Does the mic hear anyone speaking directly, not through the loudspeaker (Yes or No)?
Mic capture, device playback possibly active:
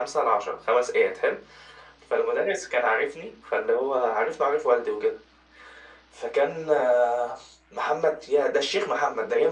No